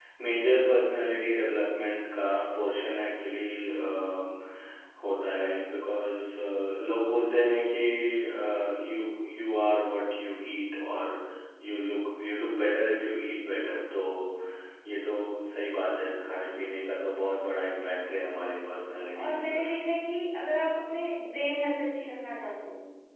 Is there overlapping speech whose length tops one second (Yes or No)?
No